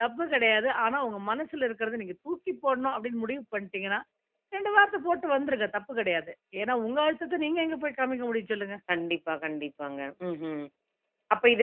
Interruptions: none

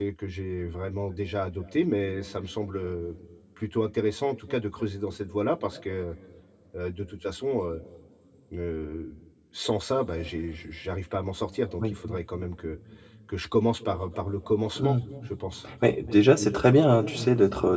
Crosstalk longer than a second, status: none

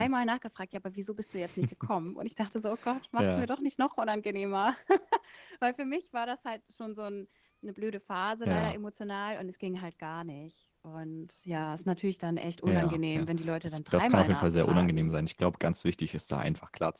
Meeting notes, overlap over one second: present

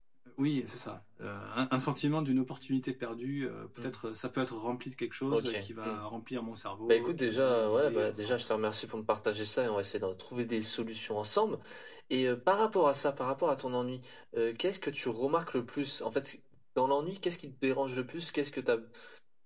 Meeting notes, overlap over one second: present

